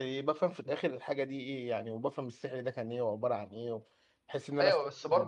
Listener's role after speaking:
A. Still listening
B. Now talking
B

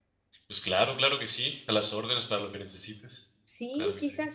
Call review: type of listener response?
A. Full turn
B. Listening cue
A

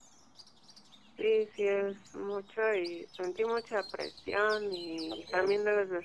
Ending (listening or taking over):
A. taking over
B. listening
B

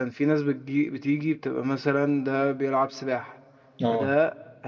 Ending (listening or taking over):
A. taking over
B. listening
B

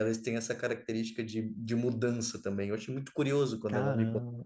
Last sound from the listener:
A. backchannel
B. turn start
B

